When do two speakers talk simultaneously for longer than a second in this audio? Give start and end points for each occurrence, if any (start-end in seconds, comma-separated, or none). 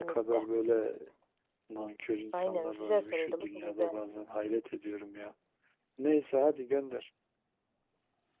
2.3-3.8